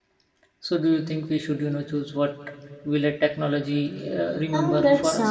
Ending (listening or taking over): taking over